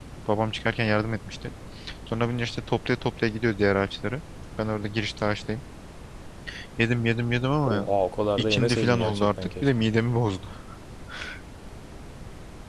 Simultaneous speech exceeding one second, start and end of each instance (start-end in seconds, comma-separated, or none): 8.4-9.7